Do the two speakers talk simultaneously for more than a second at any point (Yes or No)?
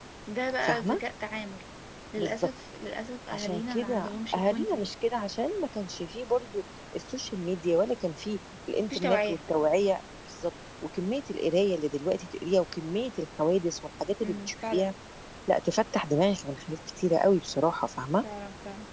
Yes